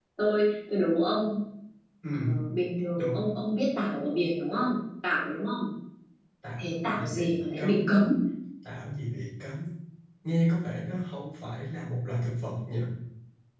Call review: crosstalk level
present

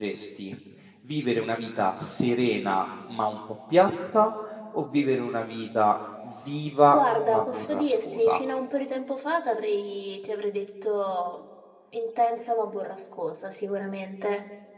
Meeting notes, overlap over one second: present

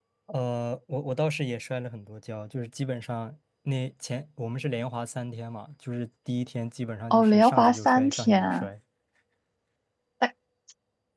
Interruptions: present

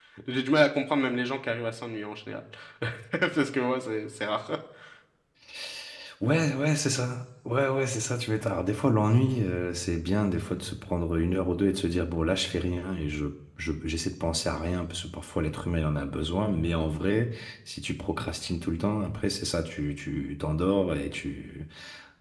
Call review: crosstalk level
none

